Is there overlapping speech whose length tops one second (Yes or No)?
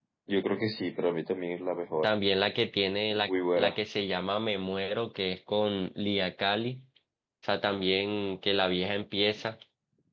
No